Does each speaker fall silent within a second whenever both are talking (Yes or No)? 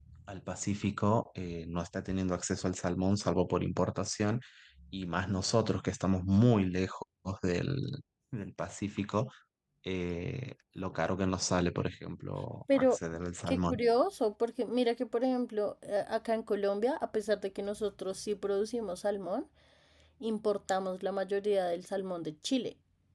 Yes